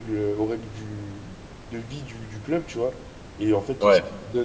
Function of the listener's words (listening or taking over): listening